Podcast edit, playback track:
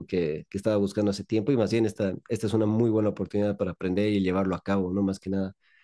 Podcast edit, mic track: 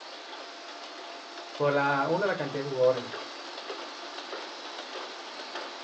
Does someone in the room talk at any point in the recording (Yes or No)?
Yes